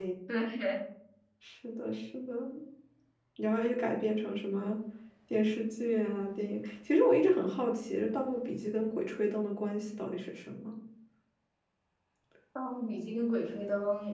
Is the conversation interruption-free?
Yes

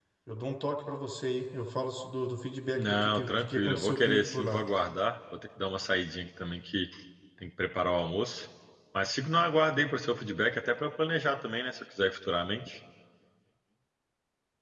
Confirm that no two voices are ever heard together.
No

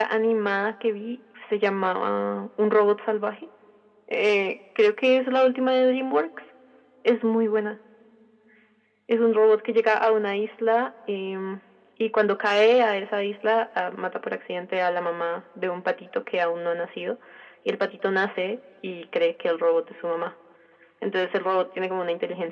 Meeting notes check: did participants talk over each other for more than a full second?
No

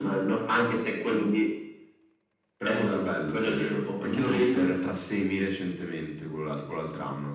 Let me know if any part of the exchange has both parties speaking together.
Yes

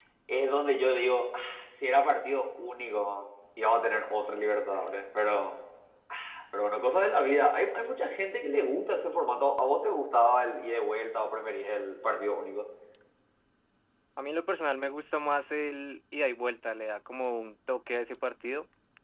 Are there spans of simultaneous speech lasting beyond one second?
No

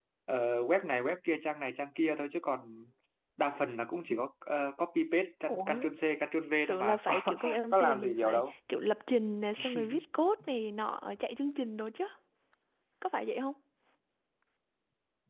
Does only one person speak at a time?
No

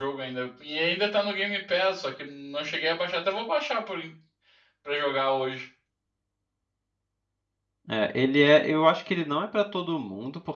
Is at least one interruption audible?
No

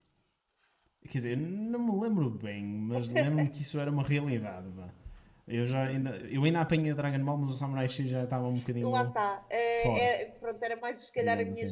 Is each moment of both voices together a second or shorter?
Yes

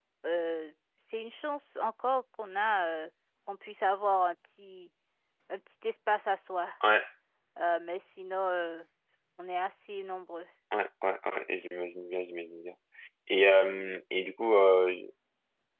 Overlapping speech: No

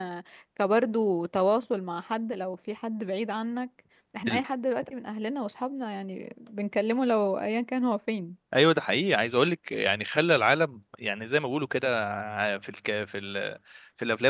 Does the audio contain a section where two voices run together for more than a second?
No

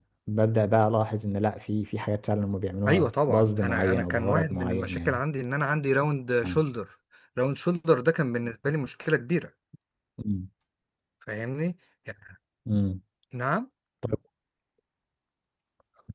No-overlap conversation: No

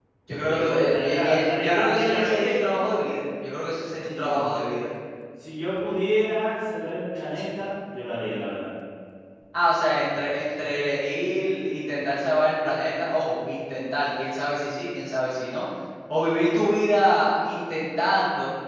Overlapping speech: Yes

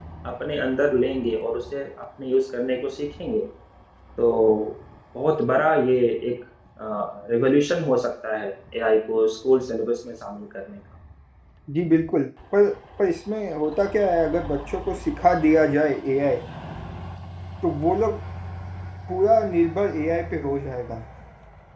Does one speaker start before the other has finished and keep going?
No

